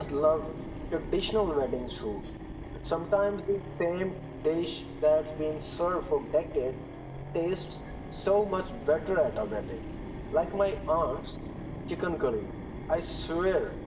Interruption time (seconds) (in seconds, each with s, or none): none